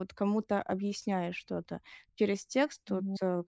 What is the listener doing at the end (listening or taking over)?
listening